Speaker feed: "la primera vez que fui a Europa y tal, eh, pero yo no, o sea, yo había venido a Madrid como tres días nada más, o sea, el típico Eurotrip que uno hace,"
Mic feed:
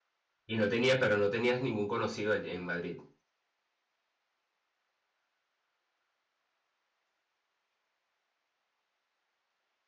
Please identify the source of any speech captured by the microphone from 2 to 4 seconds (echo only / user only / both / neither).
user only